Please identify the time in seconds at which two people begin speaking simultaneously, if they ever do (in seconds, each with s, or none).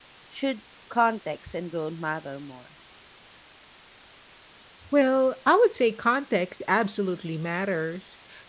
none